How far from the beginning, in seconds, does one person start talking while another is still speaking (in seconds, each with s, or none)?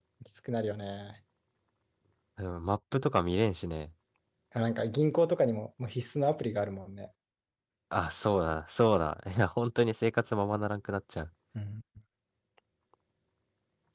none